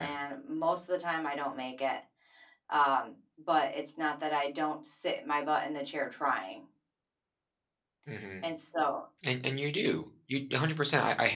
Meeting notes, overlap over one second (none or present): none